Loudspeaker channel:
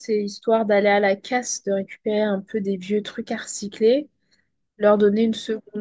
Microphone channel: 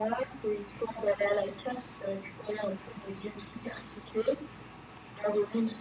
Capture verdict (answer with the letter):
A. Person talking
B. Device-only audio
B